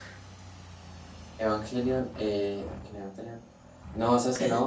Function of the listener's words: listening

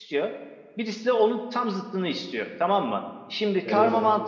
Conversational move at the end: listening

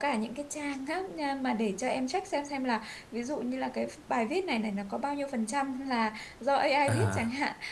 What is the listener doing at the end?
listening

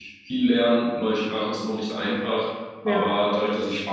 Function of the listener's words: listening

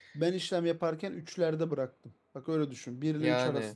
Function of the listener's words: listening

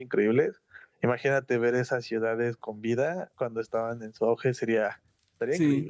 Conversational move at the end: taking over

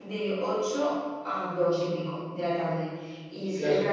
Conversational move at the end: listening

